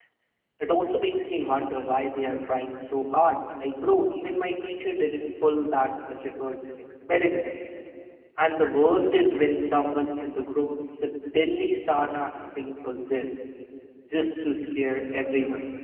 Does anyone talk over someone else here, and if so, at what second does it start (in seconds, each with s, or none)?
none